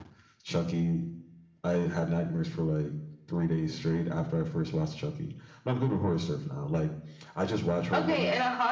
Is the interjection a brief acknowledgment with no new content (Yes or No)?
No